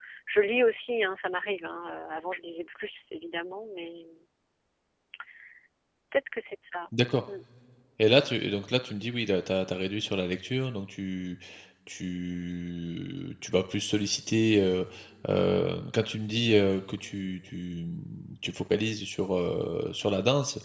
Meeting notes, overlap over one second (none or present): none